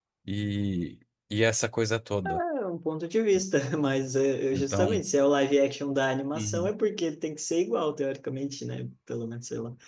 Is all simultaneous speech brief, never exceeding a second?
Yes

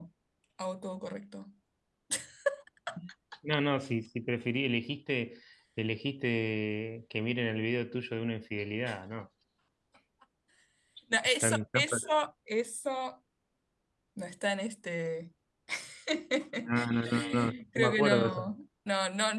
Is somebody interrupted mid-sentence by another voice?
Yes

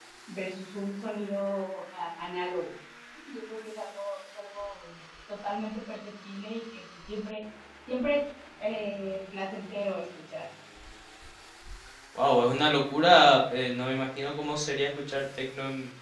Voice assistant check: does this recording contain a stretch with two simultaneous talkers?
No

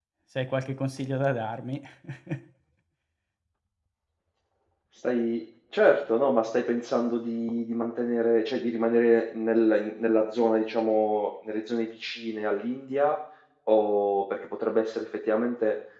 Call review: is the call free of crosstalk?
Yes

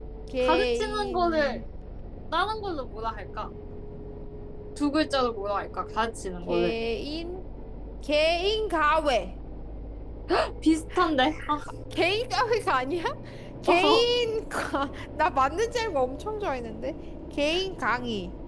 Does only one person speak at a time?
No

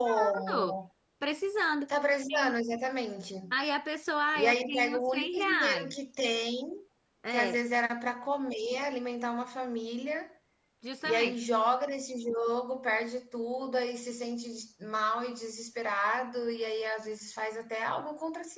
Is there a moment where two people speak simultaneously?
Yes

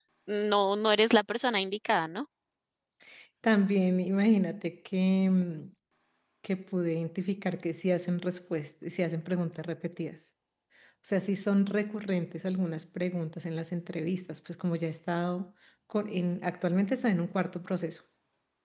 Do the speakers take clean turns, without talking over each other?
Yes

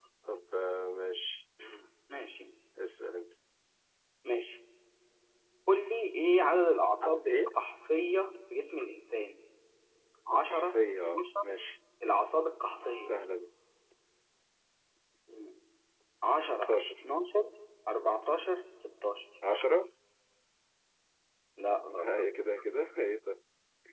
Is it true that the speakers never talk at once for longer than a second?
No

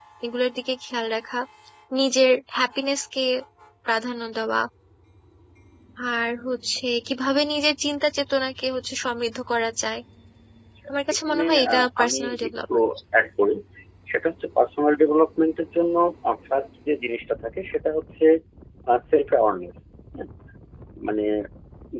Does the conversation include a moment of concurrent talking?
Yes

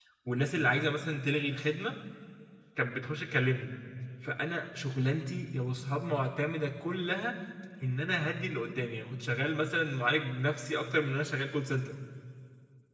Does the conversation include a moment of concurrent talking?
No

